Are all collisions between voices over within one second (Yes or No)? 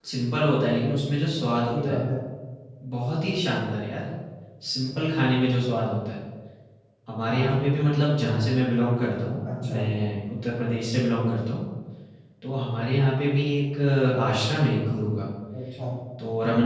Yes